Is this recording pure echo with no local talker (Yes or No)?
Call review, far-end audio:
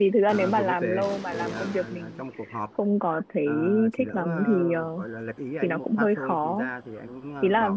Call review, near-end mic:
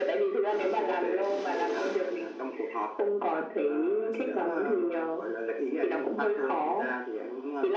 Yes